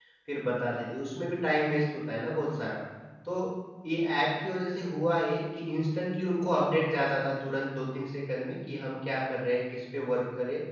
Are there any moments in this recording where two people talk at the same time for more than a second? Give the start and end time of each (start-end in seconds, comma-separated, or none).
none